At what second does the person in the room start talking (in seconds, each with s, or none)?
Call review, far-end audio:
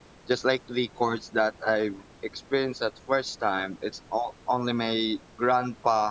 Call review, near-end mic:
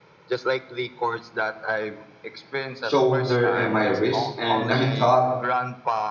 2.8 s